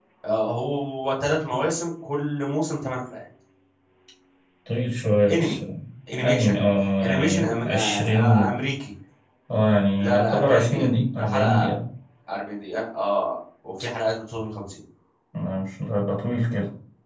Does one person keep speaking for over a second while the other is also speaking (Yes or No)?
Yes